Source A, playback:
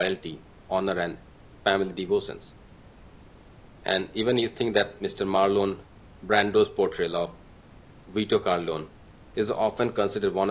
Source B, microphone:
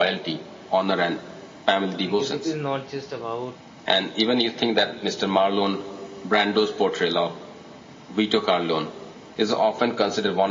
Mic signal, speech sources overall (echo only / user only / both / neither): both